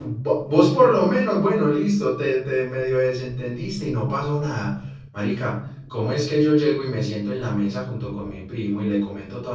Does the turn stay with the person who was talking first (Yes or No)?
Yes